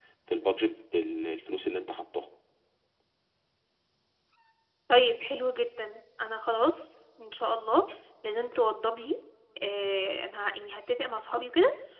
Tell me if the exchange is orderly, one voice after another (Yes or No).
Yes